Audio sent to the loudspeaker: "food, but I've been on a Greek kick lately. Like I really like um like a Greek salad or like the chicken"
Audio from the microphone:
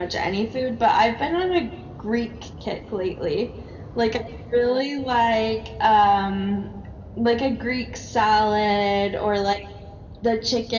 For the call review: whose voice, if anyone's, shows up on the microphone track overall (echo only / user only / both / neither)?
echo only